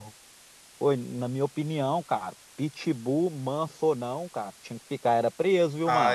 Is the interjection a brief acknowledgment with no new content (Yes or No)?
No